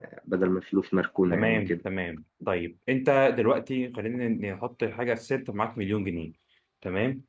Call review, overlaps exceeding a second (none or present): none